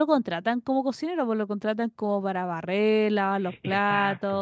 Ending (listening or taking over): listening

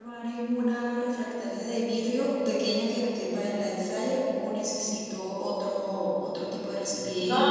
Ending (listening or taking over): taking over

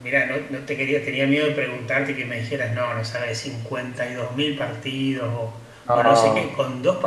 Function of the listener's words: listening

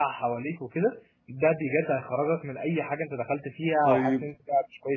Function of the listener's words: taking over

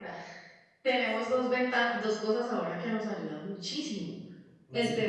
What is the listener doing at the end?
listening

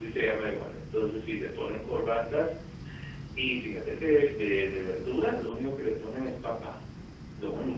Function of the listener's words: listening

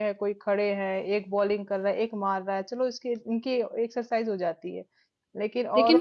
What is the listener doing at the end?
taking over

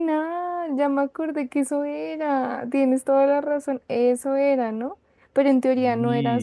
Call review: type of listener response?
listening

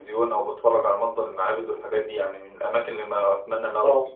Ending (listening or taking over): taking over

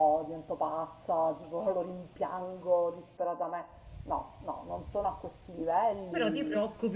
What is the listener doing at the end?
taking over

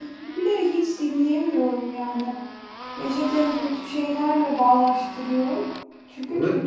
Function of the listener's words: taking over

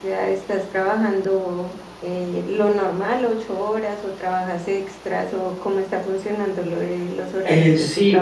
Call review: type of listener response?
taking over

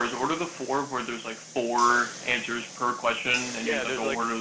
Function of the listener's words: taking over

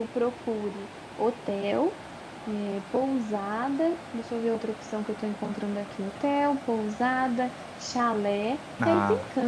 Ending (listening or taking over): listening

